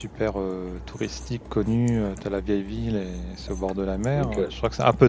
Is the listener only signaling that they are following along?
Yes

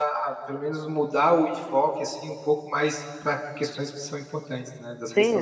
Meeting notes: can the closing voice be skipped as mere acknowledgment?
No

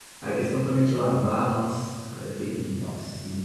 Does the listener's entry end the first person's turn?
Yes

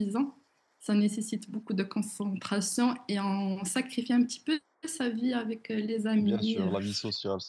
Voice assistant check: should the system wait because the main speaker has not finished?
No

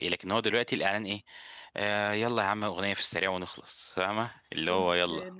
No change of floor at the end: No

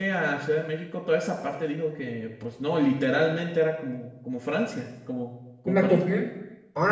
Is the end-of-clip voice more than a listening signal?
Yes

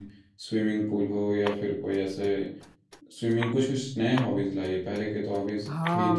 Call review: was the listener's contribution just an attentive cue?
No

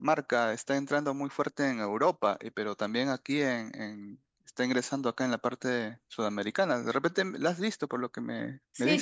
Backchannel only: No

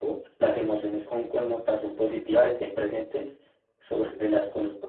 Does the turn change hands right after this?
No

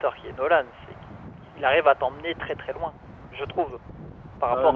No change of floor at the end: No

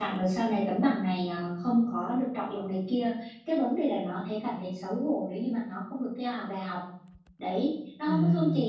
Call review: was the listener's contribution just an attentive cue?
Yes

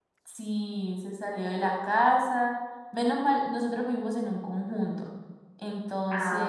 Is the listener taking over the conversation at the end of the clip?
No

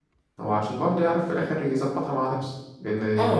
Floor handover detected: Yes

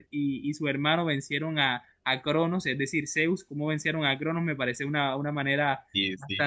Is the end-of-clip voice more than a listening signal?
No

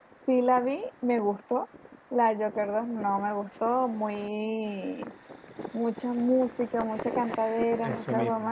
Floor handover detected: No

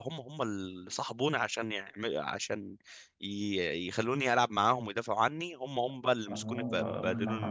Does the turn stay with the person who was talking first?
No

